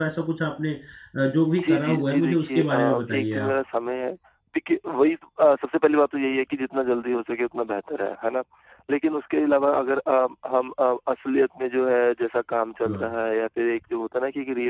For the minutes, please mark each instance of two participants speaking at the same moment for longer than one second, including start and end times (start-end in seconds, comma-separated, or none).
1.7-3.5